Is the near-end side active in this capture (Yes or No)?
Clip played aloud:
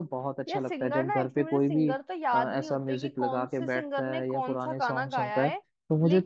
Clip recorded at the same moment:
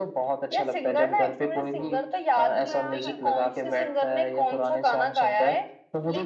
Yes